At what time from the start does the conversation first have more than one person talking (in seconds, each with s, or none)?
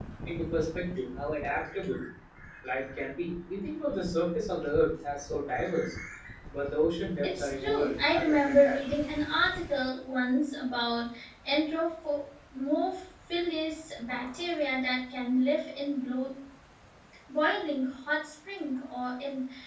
7.2 s